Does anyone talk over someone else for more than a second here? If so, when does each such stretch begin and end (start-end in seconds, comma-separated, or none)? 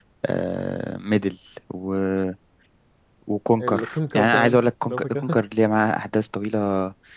3.6-5.4